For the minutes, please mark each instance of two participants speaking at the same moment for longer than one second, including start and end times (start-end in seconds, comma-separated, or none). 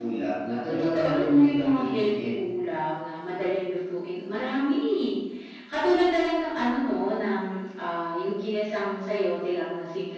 0.7-2.3